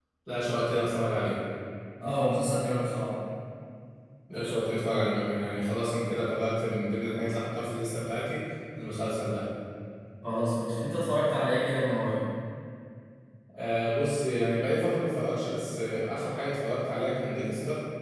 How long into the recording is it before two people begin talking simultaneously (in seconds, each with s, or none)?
none